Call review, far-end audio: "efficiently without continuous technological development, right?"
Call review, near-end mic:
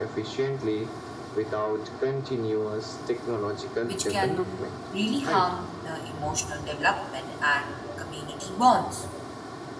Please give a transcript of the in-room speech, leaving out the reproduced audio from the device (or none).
which can really harm the emotional development and community bonds.